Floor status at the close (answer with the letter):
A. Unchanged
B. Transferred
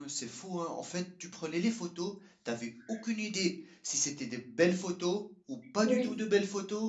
A